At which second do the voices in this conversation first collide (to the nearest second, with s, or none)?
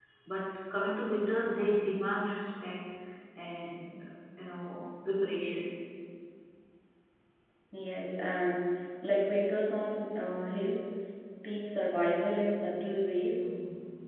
none